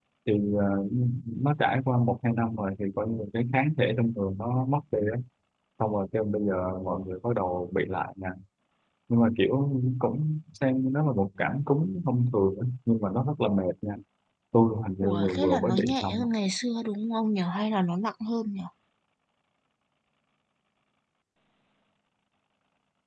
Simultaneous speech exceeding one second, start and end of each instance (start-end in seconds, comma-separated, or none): 15.0-16.3